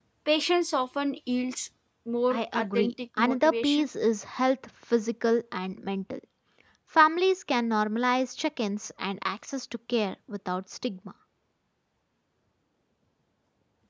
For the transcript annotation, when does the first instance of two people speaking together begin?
2.3 s

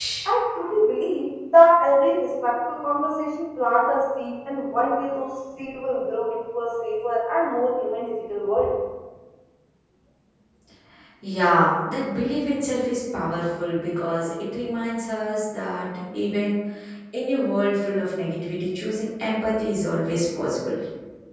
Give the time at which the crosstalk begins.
none

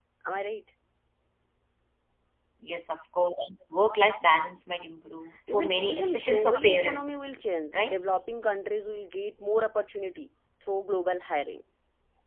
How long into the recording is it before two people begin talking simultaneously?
5.5 s

